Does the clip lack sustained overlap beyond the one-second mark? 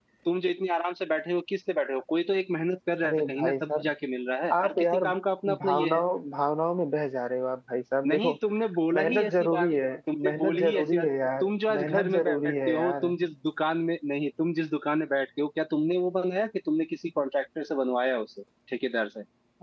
No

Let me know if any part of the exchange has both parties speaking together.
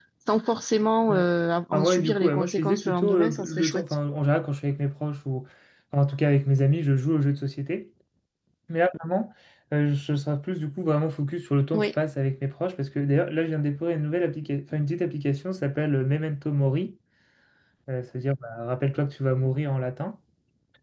Yes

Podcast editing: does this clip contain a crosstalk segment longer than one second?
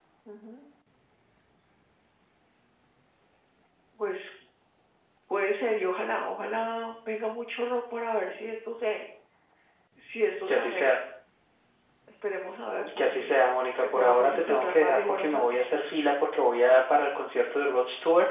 Yes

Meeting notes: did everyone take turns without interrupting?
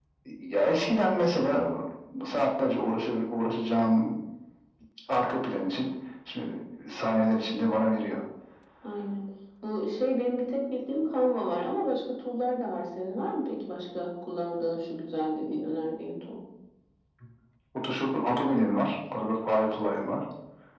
Yes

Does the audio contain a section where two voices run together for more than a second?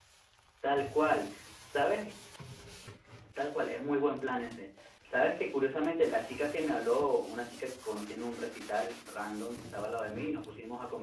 No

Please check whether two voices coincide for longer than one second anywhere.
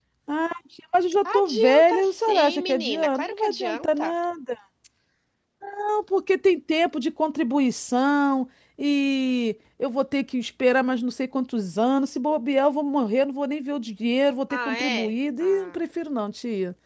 Yes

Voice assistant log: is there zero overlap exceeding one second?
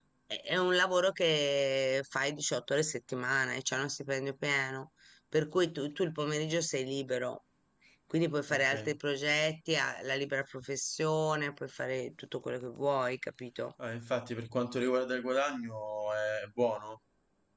Yes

